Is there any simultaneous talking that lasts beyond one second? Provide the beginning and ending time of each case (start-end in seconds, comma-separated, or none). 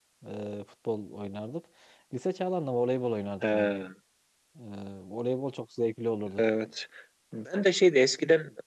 none